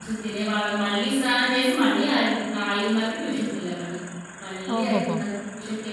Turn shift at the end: No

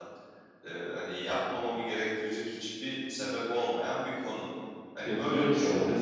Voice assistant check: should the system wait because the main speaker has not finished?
No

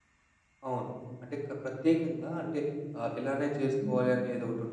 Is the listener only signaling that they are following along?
Yes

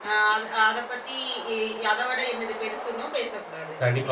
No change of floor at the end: No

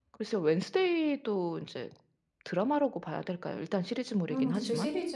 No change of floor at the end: No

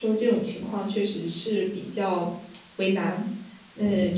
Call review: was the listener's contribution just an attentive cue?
Yes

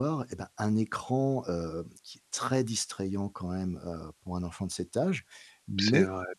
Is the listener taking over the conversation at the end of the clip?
No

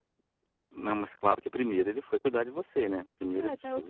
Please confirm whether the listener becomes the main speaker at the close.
Yes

